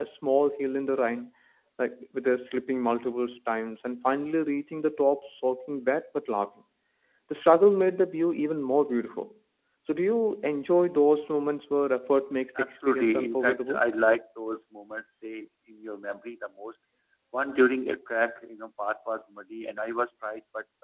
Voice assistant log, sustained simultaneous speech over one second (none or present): present